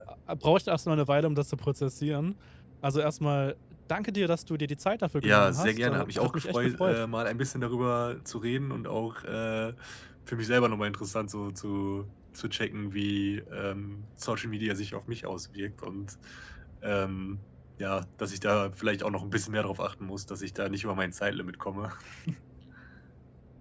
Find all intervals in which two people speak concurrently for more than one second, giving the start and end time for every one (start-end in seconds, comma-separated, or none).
5.2-7.0